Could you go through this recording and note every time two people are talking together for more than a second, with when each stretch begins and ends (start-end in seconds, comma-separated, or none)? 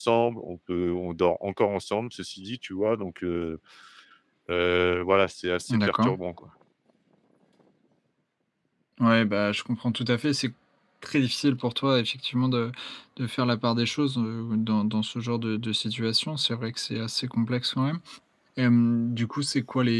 none